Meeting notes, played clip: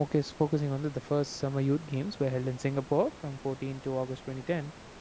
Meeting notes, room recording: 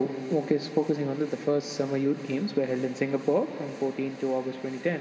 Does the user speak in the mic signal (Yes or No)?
No